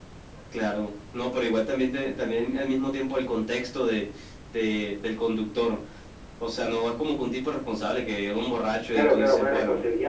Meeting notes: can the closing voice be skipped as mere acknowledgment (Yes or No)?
No